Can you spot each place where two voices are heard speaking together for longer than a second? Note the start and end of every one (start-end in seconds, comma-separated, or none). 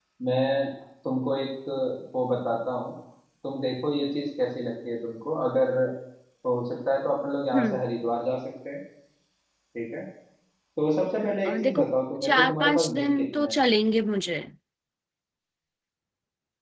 12.2-13.6